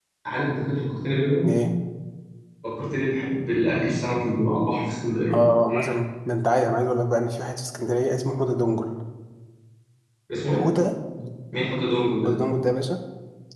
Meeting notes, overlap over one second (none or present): none